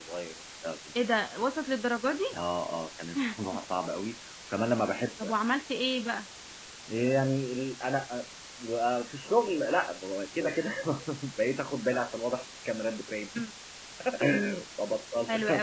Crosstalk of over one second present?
No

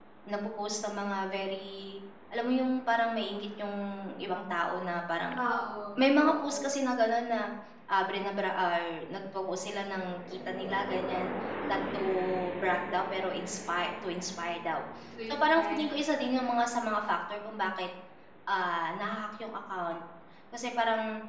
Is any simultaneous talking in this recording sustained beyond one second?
No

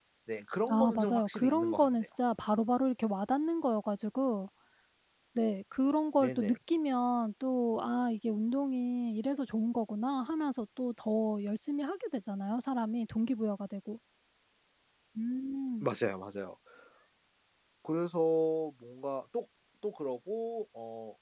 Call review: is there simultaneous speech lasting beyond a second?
Yes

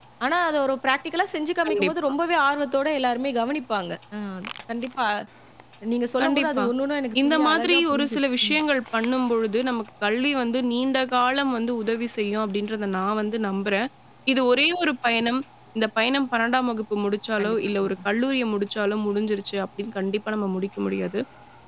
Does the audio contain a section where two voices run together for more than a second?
Yes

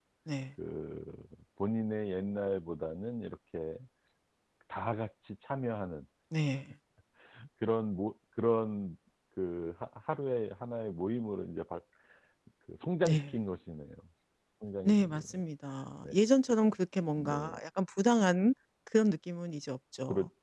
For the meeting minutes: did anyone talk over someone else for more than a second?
No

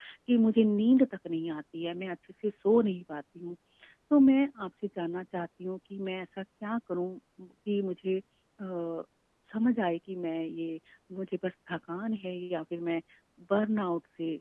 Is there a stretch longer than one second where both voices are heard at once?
No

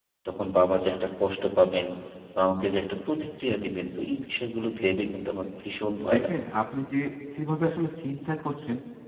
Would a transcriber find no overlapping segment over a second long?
Yes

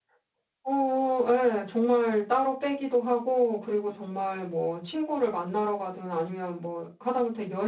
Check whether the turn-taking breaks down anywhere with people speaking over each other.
No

